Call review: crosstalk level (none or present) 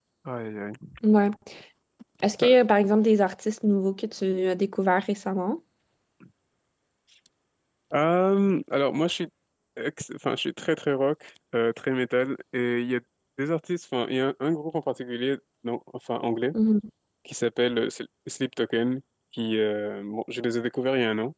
none